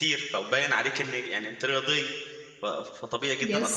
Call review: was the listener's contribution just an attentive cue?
Yes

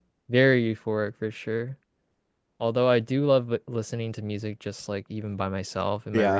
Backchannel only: Yes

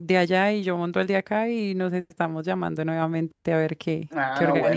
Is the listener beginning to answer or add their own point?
Yes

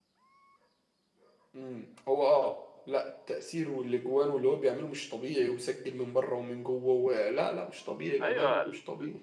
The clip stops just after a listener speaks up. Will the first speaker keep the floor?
No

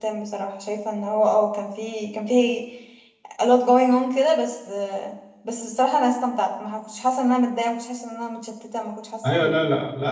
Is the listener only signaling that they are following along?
No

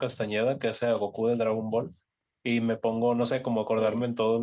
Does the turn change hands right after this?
No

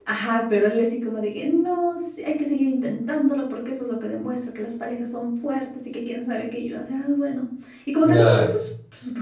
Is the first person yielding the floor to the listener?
No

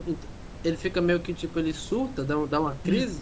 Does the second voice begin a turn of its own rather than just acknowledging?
Yes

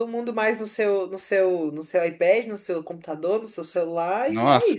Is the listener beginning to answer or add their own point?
Yes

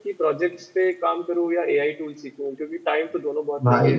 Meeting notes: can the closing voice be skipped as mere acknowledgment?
Yes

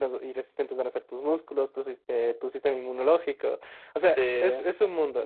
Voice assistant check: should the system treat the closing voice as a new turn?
No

